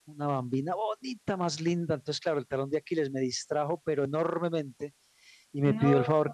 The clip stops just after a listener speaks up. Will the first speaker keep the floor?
Yes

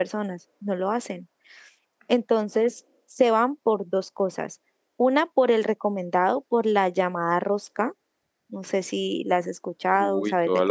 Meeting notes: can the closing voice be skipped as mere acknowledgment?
No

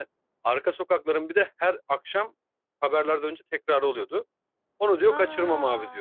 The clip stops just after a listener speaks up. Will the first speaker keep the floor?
Yes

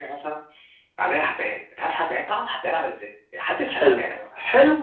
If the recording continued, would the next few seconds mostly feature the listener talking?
Yes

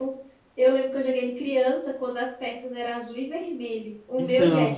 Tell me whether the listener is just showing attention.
Yes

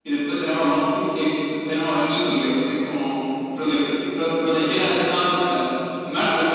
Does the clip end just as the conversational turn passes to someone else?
No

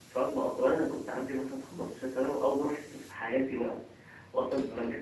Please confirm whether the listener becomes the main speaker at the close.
No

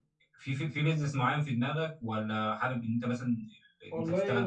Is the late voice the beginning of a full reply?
Yes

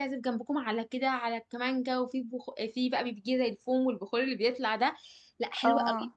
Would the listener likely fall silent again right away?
Yes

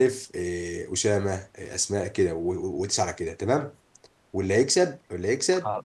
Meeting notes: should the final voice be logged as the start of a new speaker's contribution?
No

